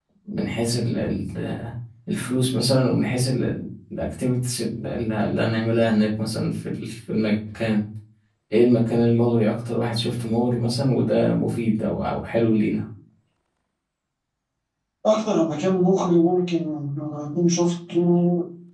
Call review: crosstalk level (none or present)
none